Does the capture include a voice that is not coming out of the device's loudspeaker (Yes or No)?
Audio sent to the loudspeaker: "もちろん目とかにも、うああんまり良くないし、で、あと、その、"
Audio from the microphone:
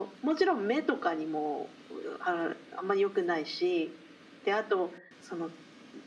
No